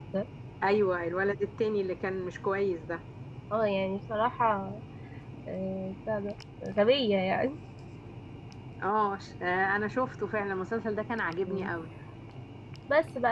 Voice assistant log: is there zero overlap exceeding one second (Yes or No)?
Yes